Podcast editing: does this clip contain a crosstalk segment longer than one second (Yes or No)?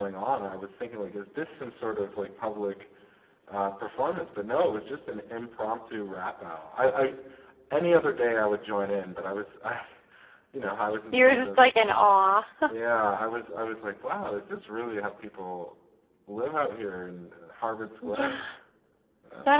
No